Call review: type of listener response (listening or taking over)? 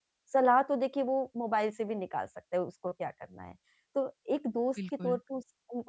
listening